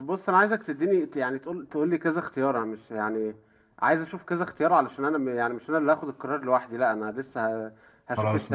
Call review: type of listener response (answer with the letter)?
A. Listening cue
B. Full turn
A